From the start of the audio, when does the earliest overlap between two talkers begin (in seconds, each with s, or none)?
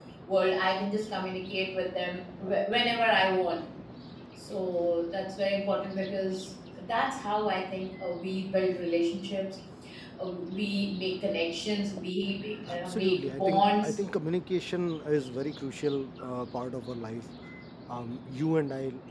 12.7 s